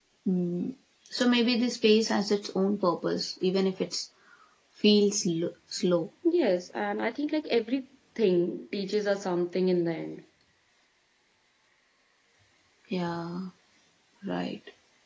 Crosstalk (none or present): none